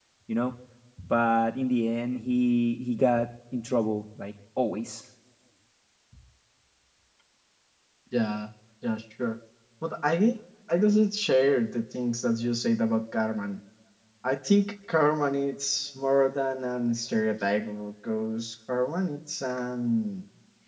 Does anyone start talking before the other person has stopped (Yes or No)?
No